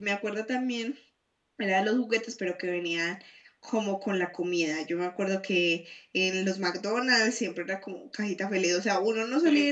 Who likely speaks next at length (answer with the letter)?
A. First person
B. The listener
A